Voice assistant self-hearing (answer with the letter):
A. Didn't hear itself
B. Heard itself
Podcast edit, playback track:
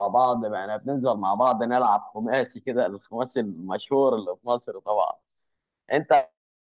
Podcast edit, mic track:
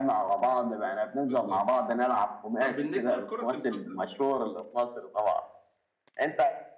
B